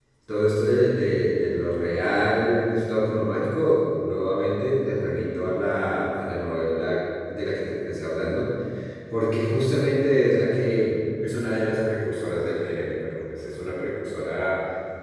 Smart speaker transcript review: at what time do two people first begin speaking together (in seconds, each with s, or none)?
none